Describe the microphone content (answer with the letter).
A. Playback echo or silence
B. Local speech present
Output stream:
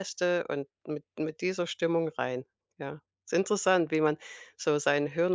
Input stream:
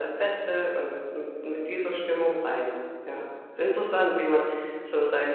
A